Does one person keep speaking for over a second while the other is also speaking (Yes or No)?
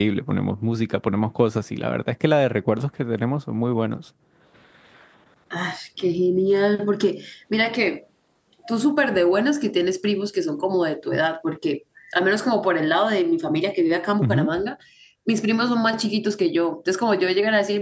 No